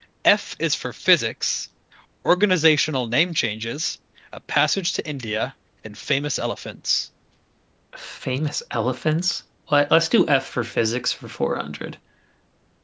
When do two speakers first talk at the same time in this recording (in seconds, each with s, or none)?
none